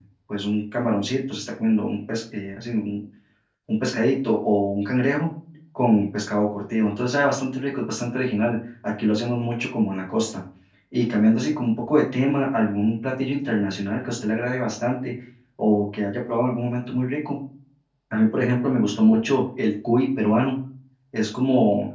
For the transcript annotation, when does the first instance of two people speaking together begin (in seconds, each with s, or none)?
none